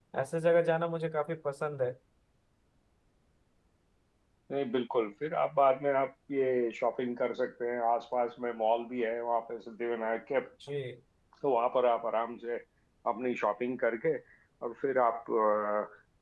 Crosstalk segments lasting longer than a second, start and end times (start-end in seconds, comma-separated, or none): none